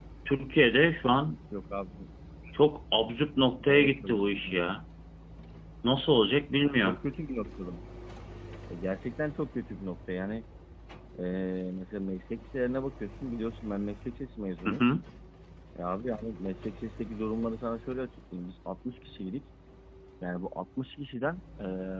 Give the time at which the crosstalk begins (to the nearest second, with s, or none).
4 s